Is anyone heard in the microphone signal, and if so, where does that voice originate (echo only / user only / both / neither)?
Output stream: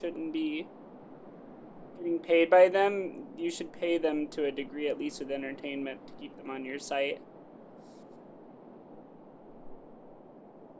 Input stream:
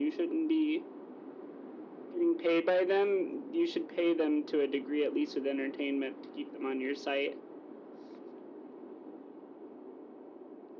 echo only